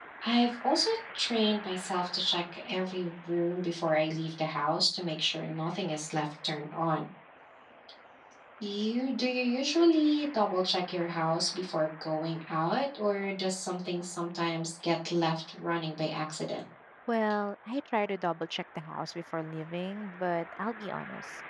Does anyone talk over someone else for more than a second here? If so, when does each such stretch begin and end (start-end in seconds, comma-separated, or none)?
none